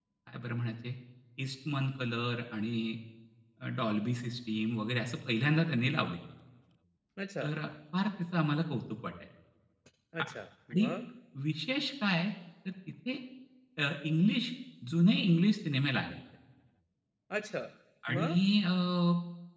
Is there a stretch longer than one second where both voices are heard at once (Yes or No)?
No